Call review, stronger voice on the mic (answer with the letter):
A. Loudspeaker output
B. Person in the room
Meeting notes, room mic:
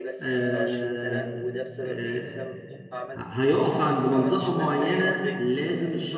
B